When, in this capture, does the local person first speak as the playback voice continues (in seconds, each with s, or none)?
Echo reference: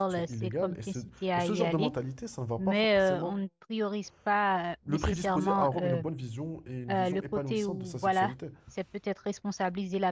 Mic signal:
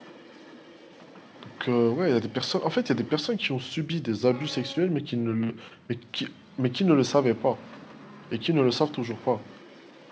1.4 s